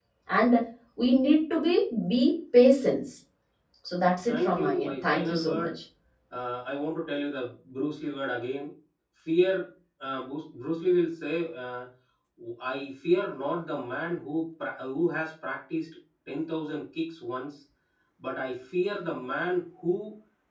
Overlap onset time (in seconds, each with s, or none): 4.3 s